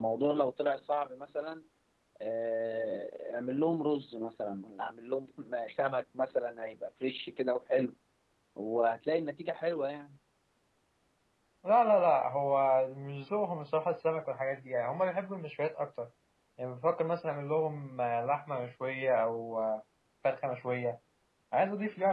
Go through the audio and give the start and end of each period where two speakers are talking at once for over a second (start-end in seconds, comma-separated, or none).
none